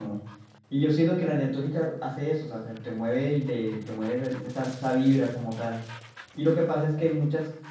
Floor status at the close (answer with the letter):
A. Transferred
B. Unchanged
B